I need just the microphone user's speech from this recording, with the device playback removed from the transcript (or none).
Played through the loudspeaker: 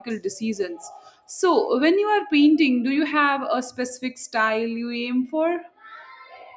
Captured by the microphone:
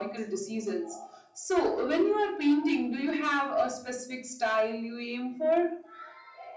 none